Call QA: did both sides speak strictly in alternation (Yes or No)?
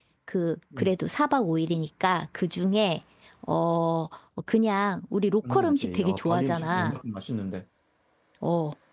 No